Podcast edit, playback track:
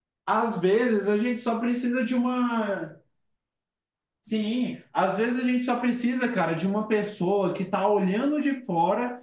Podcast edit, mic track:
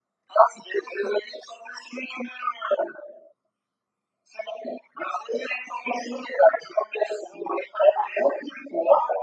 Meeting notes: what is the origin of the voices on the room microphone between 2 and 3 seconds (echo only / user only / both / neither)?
echo only